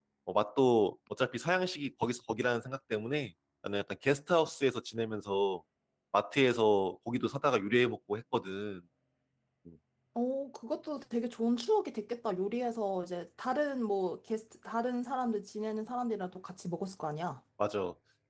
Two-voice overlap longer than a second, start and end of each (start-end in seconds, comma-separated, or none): none